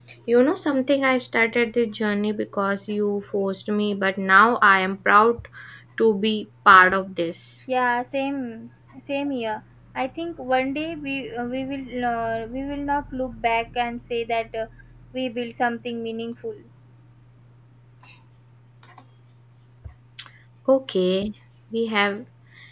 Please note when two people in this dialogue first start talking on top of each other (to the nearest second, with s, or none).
none